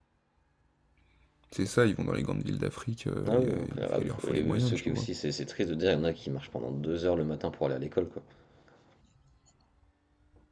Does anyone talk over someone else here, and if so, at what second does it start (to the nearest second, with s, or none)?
3 s